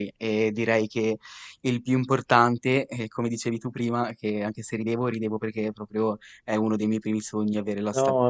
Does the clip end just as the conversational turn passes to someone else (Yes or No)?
Yes